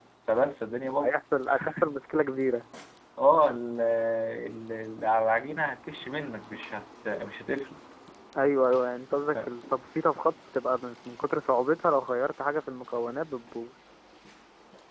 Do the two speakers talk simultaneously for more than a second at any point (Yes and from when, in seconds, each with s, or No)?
No